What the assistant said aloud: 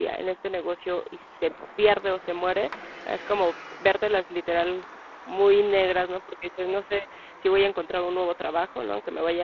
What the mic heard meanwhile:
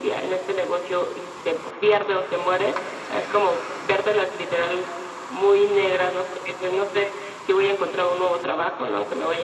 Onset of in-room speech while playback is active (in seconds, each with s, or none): none